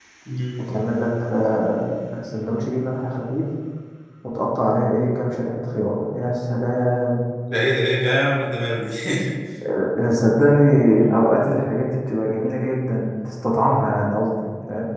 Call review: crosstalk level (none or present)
none